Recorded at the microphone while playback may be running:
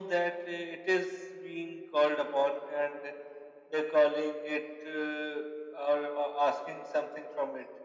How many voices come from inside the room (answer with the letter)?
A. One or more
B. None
B